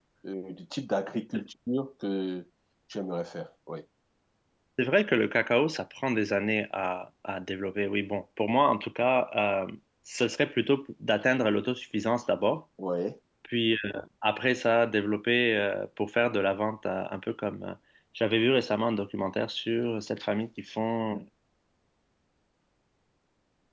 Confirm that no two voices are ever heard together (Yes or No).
Yes